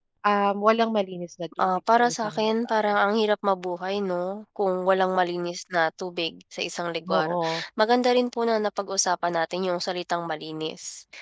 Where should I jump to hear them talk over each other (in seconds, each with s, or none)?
1.6 s